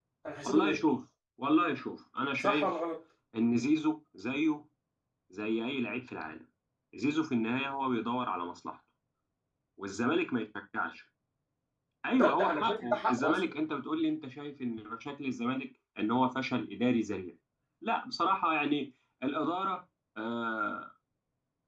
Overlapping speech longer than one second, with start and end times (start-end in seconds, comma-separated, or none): 12.1-13.6